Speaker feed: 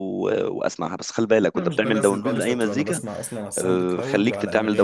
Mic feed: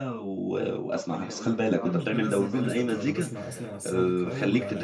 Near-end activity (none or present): present